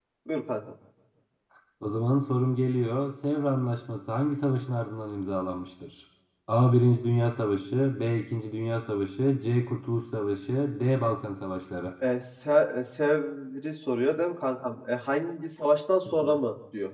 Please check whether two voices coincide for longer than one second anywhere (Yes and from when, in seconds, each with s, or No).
No